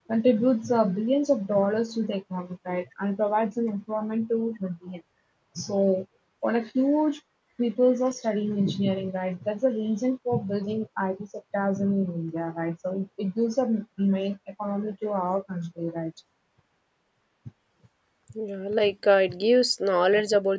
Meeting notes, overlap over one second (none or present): none